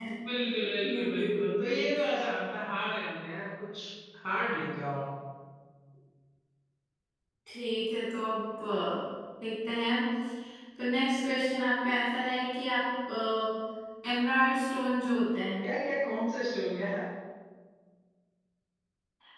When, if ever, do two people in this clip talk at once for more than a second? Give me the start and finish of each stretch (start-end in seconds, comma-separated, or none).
0.8-2.0